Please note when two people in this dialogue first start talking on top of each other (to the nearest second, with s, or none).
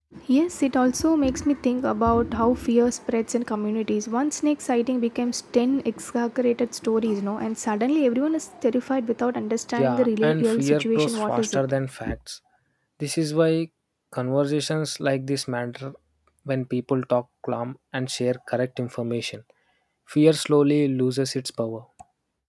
10 s